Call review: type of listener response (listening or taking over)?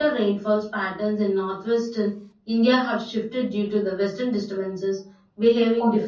taking over